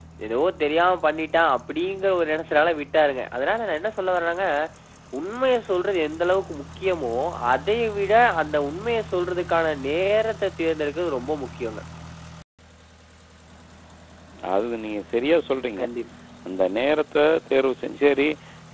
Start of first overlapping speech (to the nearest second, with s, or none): none